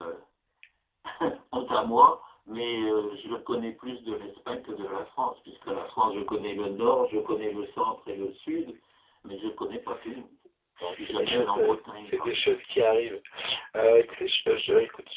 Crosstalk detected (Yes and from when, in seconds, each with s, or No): Yes, from 10.8 s